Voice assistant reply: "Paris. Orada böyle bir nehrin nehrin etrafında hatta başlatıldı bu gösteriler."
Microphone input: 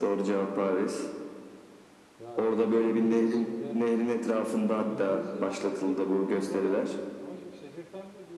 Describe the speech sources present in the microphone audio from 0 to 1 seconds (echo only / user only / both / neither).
echo only